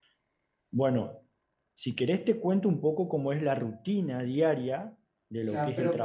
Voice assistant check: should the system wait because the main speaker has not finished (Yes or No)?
No